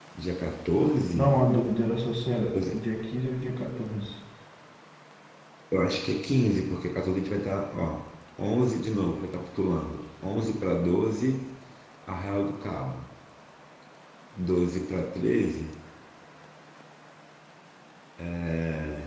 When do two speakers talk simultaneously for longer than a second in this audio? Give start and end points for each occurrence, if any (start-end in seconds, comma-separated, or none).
none